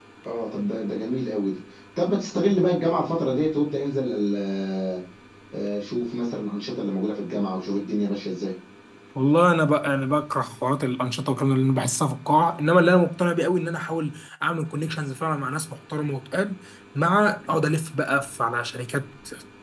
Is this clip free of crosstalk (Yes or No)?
Yes